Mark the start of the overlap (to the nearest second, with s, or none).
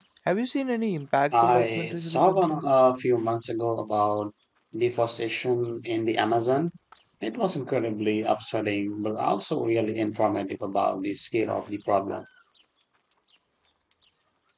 1 s